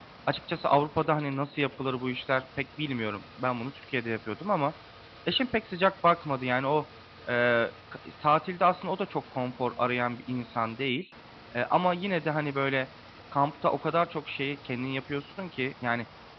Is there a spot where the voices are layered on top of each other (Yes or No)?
No